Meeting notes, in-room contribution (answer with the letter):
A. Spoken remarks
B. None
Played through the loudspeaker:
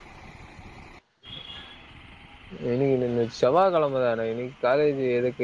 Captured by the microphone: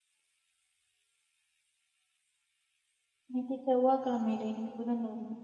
A